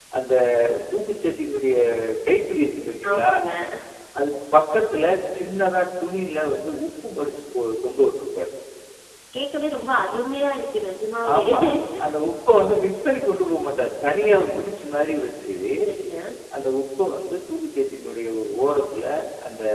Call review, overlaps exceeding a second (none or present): none